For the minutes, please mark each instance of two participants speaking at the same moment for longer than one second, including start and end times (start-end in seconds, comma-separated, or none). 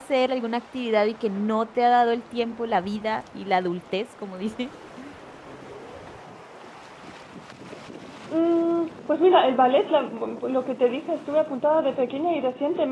none